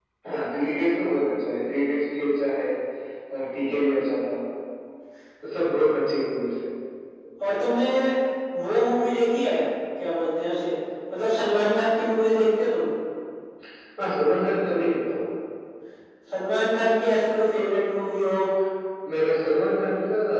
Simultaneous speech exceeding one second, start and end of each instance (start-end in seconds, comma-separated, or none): none